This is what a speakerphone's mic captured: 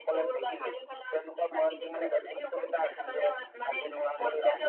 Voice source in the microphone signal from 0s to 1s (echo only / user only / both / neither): echo only